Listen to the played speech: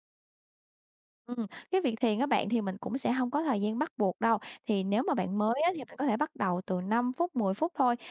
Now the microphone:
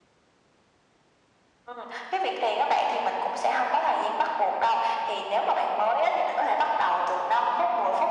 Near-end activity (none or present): none